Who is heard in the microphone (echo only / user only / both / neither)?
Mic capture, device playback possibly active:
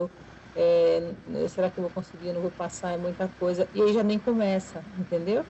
echo only